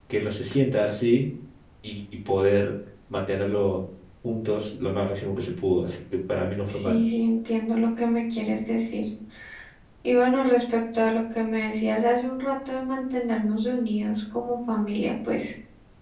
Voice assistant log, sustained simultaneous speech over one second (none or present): none